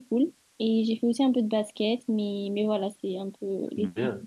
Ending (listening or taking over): taking over